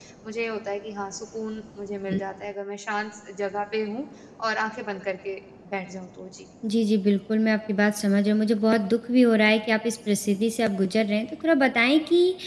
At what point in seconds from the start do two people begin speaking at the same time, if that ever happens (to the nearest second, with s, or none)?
none